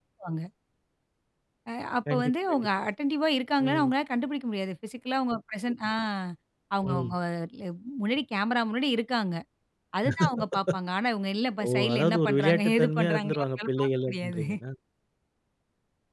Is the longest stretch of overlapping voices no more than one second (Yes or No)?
No